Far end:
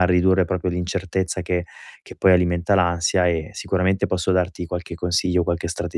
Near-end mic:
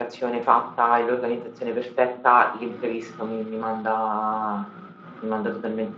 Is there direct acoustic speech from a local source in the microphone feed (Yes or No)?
Yes